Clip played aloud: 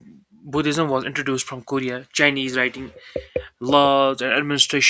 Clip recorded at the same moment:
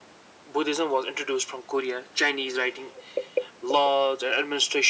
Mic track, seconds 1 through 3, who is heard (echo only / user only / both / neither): echo only